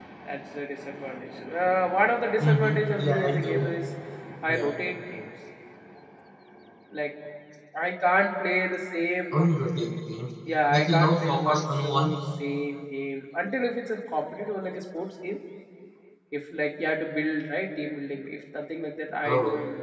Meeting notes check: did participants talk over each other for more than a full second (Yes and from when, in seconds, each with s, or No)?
Yes, from 2.4 s